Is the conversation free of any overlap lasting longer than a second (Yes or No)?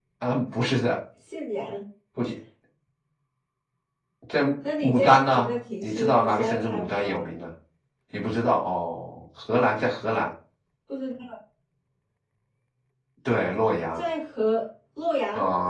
No